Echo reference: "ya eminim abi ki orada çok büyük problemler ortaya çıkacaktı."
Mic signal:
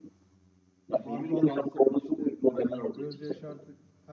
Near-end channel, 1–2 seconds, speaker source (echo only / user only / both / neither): both